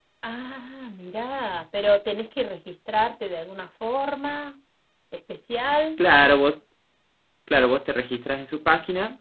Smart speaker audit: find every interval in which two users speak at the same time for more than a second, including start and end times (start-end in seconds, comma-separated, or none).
none